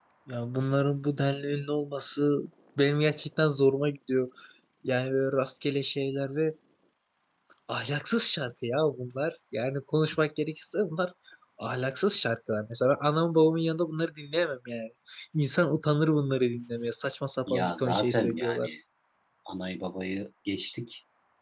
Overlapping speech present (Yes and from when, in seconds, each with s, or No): Yes, from 17.5 s